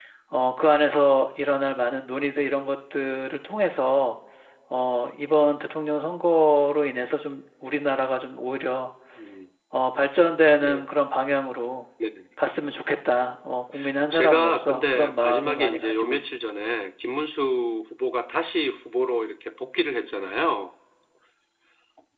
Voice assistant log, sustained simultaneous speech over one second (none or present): present